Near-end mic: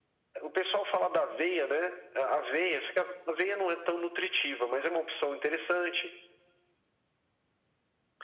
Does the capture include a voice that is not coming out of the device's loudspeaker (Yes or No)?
No